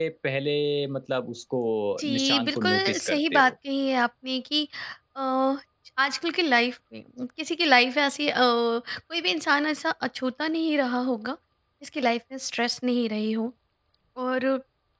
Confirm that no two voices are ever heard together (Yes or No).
No